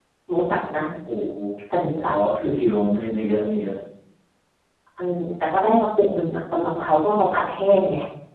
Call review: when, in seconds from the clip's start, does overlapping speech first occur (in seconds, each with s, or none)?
none